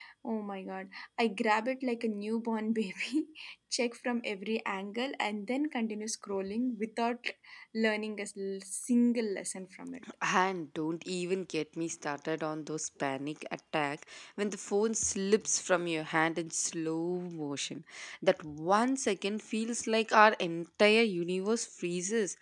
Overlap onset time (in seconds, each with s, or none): none